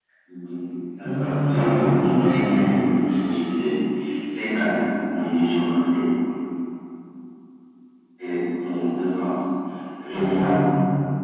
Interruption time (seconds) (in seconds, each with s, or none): 1.0 s